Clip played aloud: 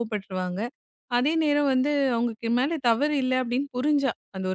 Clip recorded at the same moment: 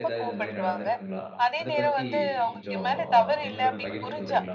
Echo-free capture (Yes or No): No